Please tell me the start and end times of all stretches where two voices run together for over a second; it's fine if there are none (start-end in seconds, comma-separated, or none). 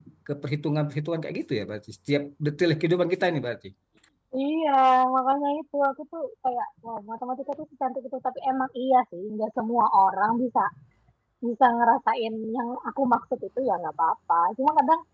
none